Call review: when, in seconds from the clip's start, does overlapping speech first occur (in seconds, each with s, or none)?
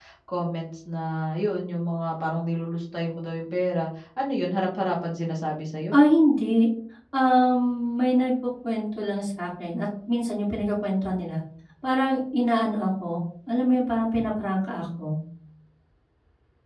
none